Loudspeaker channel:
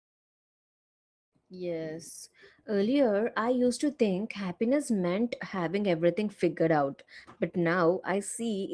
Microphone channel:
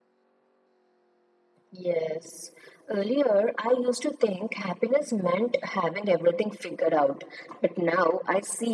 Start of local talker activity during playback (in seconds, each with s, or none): none